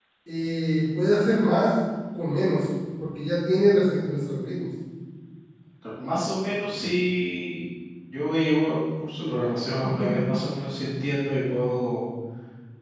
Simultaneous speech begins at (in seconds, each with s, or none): none